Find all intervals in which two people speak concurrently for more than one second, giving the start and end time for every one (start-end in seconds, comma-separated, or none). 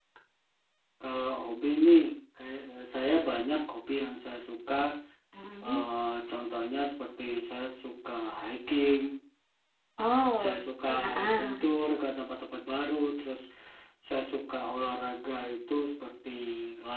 10.4-11.7